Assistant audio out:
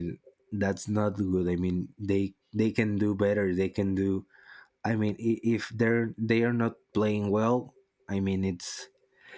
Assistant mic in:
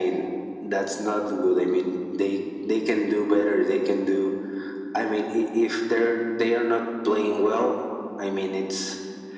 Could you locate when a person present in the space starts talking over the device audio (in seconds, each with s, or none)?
none